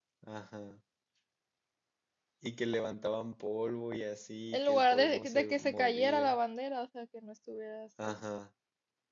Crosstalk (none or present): present